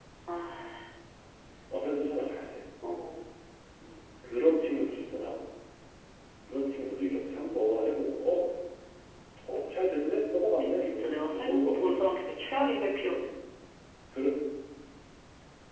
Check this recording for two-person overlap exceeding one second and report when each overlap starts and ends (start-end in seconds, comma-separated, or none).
10.6-12.0